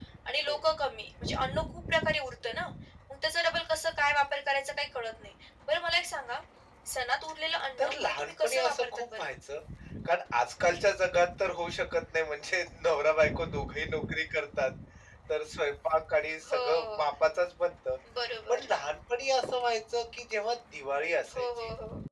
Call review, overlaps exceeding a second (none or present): present